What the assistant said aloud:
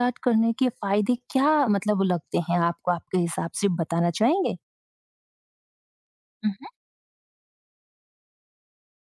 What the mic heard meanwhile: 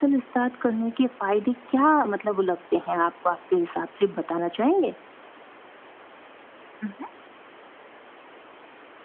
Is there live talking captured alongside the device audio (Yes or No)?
No